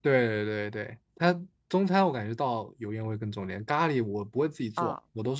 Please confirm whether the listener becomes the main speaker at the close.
No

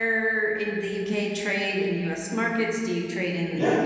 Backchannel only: No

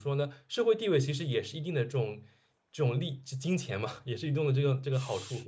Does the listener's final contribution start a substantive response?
Yes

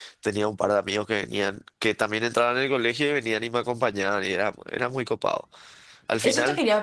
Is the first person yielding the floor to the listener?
Yes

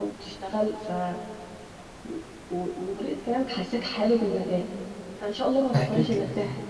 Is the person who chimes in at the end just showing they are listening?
Yes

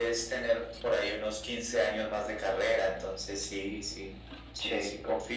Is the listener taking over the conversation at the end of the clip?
Yes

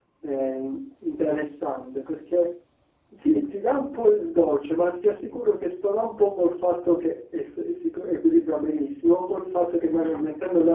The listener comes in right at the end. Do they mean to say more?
No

